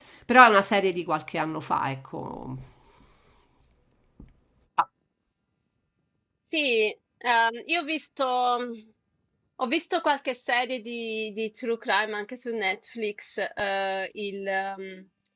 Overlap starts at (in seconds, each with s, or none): none